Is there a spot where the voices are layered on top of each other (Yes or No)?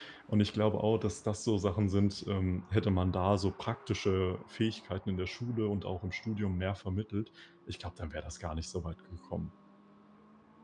No